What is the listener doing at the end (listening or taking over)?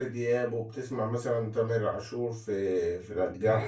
taking over